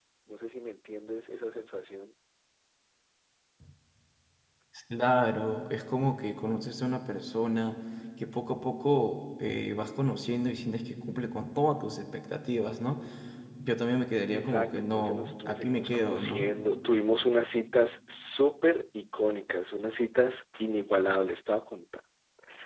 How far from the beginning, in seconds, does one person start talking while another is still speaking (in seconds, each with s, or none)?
14.3 s